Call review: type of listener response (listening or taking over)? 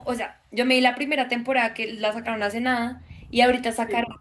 listening